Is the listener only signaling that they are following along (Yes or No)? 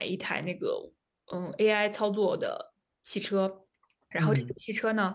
Yes